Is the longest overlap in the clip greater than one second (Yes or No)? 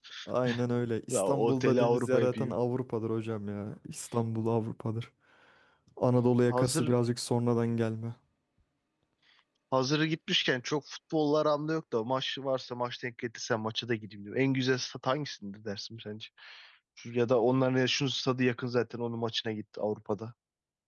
Yes